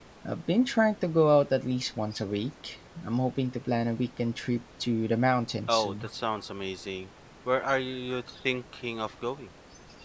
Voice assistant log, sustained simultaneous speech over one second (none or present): none